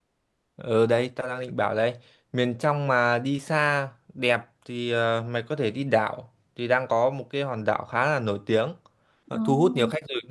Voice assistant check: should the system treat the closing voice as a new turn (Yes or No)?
No